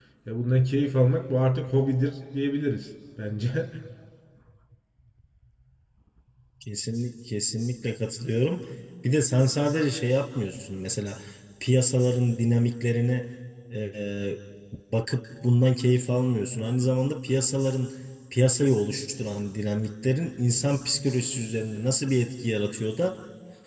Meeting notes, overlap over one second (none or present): none